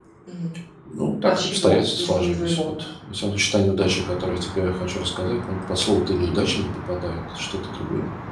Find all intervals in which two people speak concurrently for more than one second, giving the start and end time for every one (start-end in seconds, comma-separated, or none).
1.2-2.6